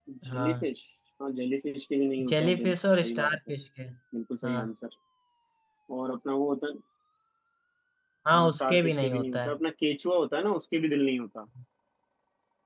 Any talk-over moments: Yes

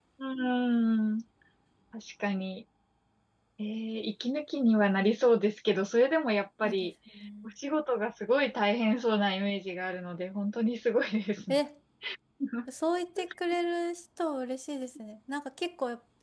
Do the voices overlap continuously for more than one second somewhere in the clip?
No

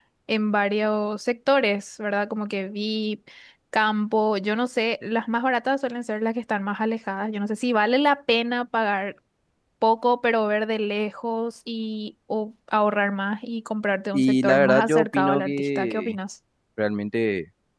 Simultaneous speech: Yes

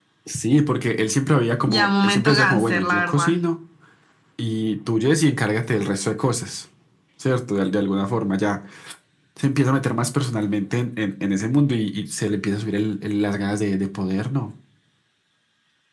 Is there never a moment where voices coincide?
No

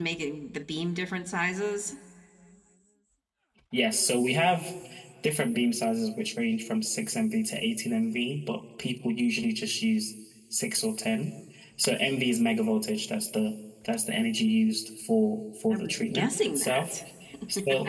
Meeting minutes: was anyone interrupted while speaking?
Yes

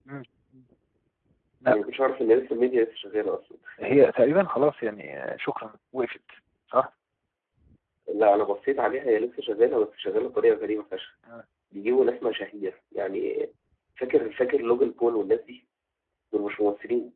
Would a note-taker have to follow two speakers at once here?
No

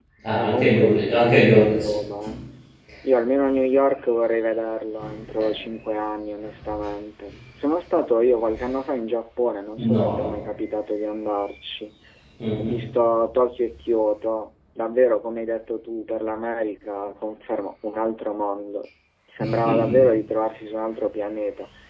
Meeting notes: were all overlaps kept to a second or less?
No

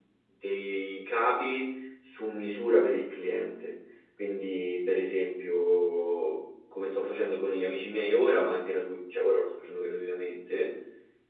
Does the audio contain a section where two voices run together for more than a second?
No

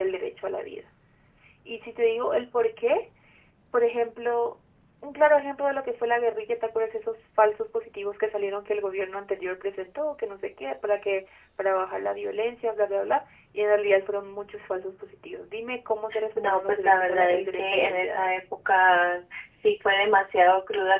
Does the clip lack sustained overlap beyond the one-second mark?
No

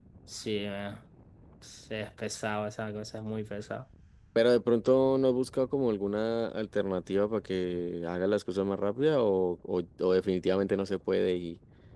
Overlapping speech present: No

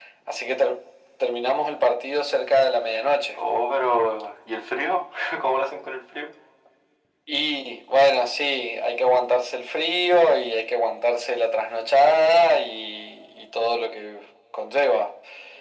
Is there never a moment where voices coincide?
Yes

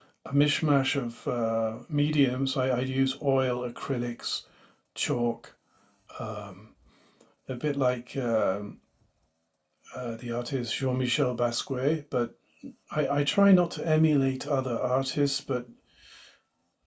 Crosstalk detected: No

